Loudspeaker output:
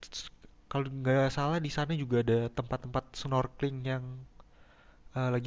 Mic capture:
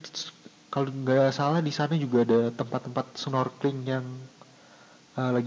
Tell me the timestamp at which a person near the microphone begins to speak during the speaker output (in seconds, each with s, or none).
none